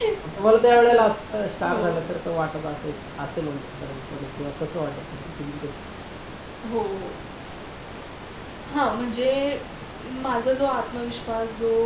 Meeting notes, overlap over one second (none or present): none